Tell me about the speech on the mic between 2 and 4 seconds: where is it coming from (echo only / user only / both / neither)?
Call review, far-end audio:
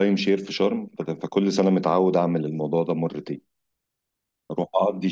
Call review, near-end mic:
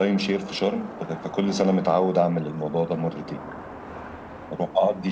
echo only